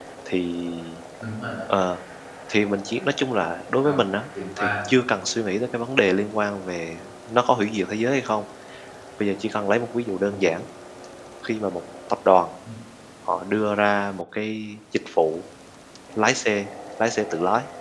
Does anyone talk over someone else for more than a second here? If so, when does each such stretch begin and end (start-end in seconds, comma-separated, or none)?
none